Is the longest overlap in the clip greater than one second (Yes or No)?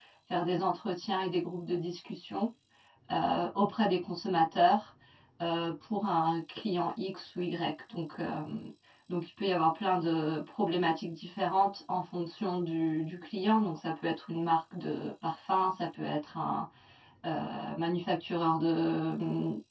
No